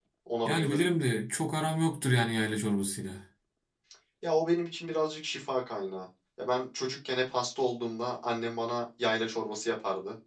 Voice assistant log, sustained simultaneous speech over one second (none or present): none